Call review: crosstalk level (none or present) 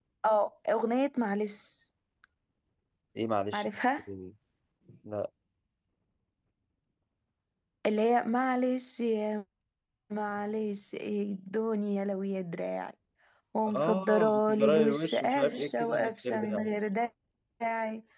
present